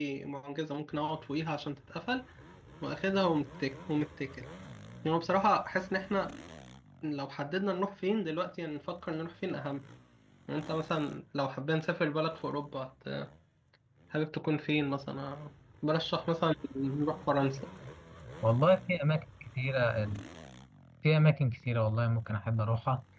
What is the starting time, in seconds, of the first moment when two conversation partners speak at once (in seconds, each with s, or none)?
none